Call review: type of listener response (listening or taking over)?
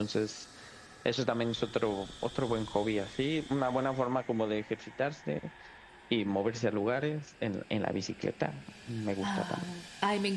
taking over